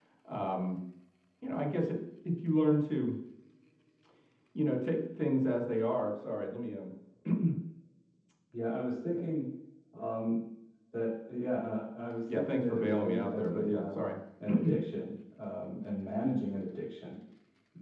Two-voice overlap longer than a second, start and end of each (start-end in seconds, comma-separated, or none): 12.3-14.0